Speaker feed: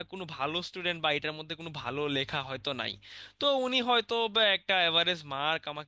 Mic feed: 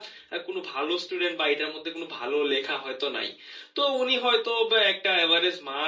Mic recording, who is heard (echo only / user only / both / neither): echo only